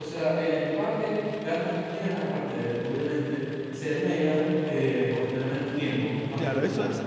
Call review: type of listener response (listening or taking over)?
taking over